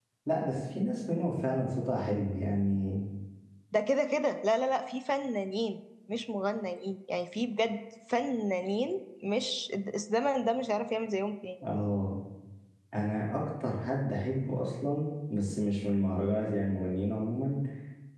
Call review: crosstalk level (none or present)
none